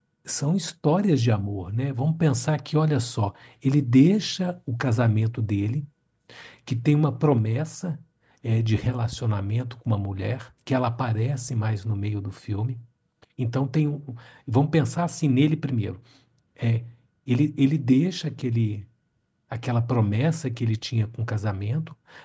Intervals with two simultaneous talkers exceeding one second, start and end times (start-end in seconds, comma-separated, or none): none